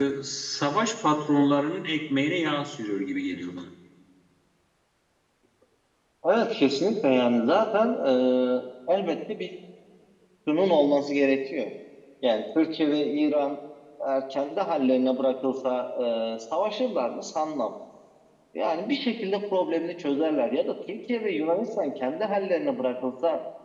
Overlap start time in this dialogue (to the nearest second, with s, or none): none